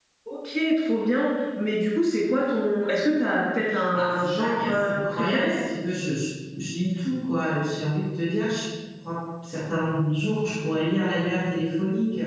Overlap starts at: 4 s

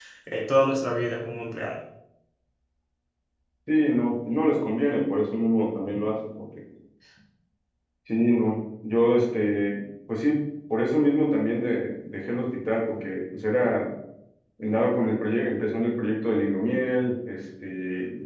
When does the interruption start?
none

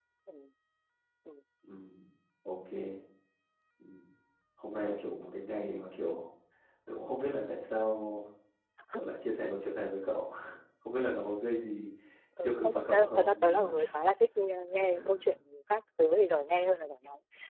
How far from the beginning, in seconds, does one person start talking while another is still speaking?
12 s

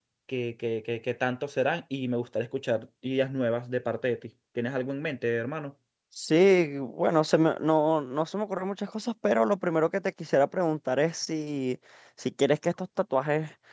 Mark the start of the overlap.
none

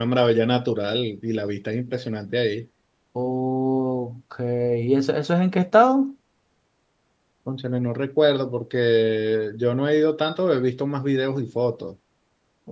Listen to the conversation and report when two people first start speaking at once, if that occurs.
none

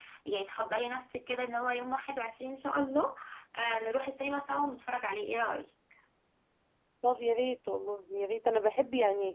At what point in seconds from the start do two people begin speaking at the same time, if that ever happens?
none

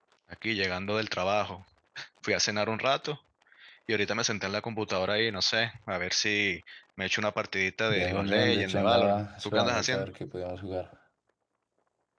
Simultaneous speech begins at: 8 s

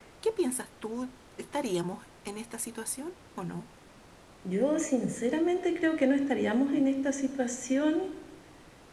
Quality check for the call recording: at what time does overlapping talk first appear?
none

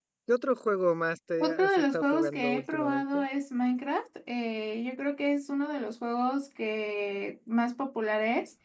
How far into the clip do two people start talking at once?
1 s

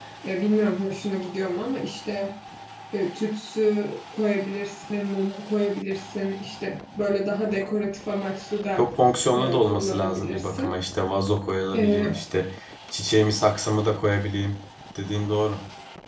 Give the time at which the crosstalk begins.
9 s

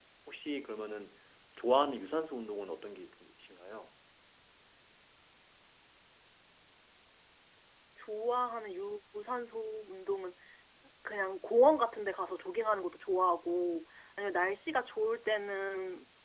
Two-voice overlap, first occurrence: none

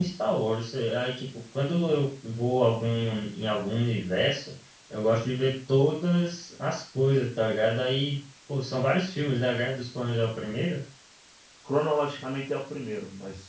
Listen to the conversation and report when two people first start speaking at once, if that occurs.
none

